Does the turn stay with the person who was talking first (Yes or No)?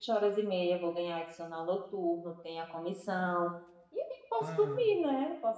Yes